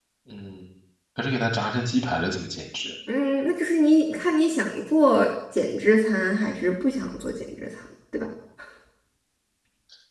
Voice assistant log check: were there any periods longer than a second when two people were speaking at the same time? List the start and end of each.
none

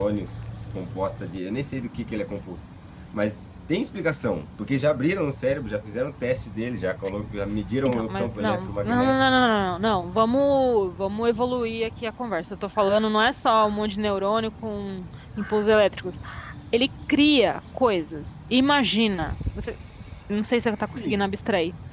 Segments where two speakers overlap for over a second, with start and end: 7.8-9.1

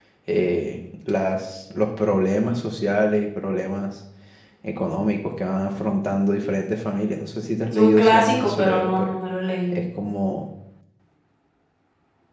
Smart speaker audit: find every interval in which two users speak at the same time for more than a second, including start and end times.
7.7-9.1

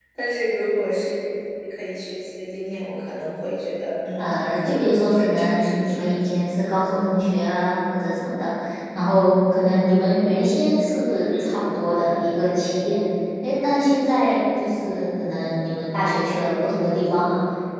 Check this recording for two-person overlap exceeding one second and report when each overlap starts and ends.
4.2-6.0

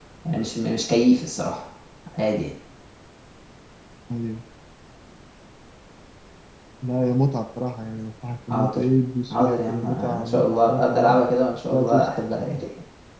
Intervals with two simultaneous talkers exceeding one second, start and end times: 9.3-11.2

